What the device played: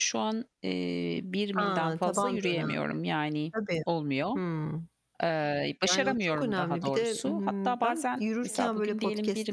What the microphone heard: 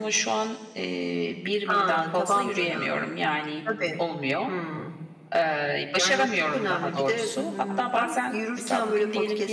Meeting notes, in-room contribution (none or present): none